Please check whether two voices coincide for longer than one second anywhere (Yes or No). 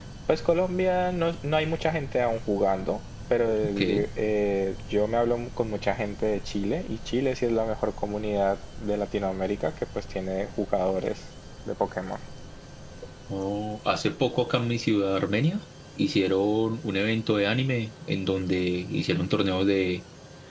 No